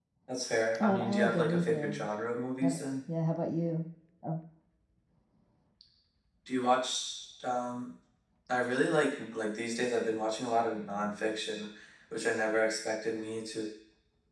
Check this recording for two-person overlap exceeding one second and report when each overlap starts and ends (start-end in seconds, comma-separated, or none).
0.8-2.1